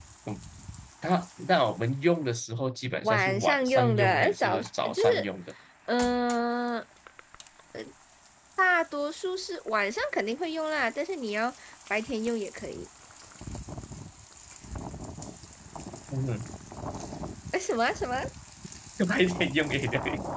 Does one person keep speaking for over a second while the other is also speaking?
Yes, from 3.0 s

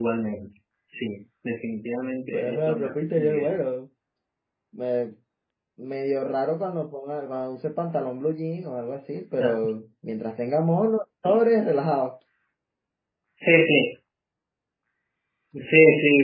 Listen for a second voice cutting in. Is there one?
Yes, from 2.3 s

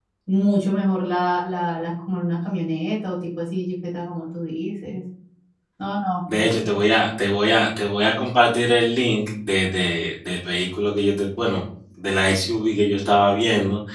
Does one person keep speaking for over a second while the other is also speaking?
No

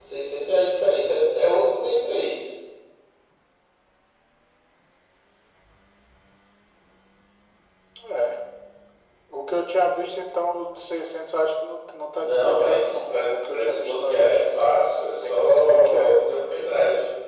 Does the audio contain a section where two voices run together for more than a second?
Yes, from 12.2 s

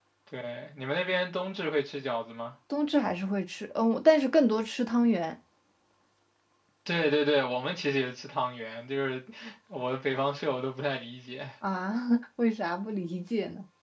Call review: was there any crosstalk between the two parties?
No

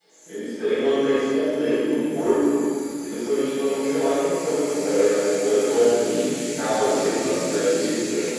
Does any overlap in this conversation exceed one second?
Yes, from 6.0 s

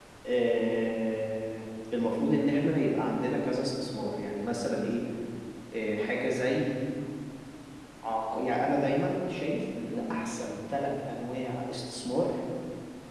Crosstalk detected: No

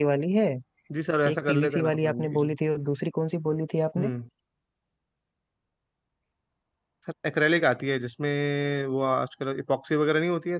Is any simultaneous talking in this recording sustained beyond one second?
Yes, from 1.3 s

